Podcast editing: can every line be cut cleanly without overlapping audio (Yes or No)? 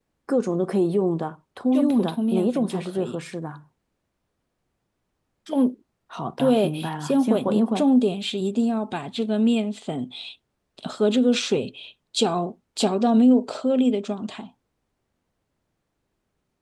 No